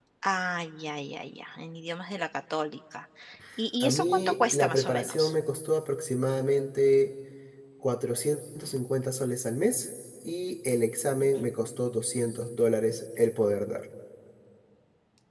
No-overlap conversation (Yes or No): No